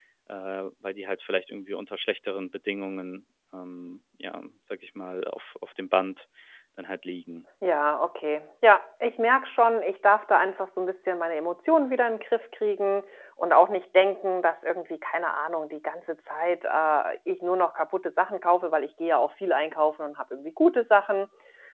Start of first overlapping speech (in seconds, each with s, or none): none